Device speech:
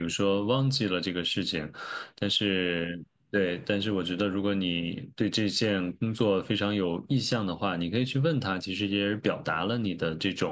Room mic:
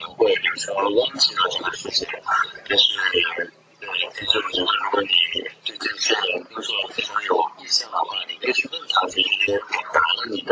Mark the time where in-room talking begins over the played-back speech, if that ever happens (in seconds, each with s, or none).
none